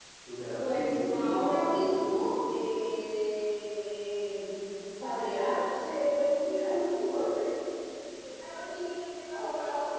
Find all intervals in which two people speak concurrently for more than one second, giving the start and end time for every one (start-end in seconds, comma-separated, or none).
0.6-2.1